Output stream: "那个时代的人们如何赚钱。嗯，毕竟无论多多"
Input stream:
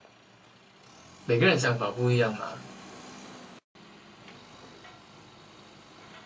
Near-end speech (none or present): present